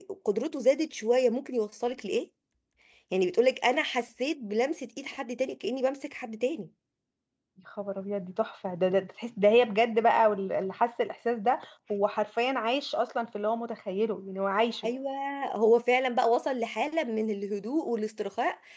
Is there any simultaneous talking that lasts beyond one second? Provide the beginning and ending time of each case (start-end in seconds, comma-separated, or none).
none